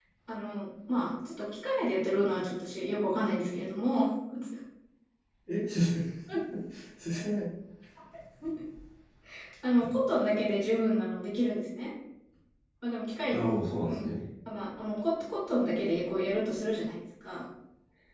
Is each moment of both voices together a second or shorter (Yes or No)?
Yes